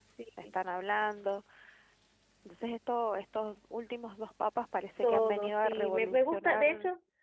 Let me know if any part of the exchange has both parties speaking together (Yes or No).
Yes